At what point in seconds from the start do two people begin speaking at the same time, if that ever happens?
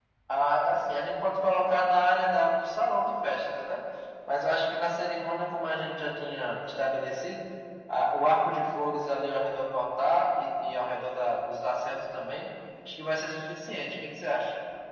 none

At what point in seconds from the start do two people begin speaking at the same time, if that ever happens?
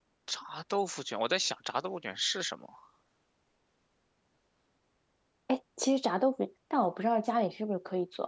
none

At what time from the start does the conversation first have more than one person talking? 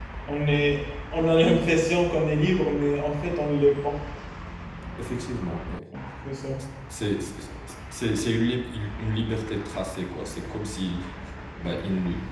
none

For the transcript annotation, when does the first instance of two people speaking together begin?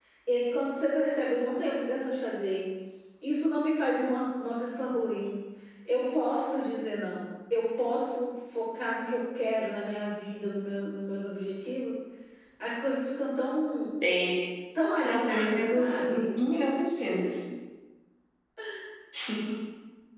15.0 s

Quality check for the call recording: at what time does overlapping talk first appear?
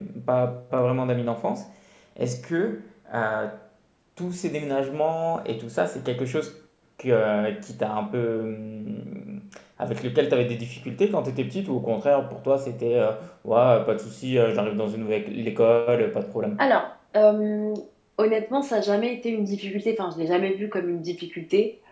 none

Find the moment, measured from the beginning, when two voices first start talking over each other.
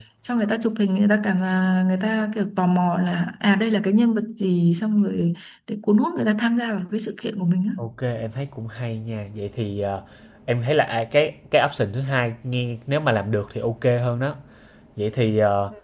none

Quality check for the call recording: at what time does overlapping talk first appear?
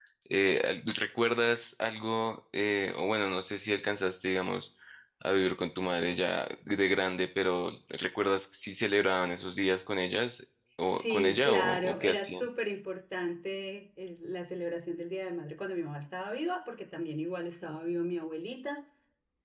10.9 s

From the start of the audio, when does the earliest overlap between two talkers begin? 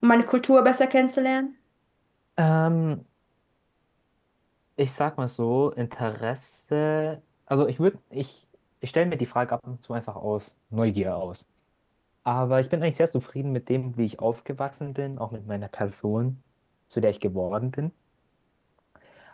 none

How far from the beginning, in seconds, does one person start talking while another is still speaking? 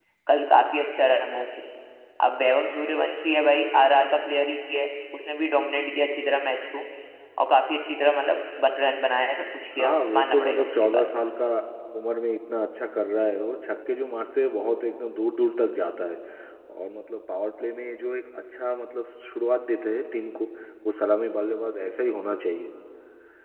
9.8 s

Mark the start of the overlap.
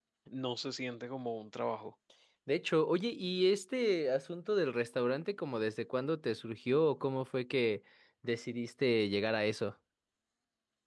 none

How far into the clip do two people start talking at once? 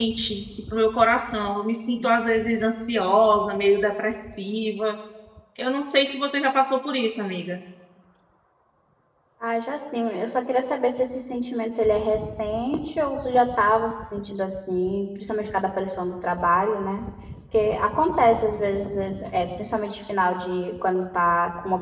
none

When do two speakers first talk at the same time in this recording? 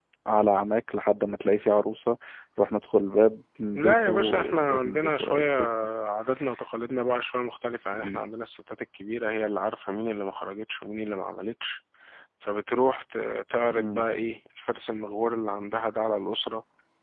3.7 s

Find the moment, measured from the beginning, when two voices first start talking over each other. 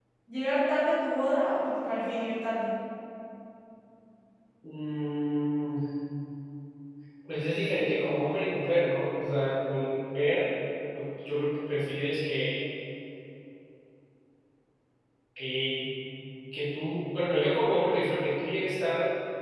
none

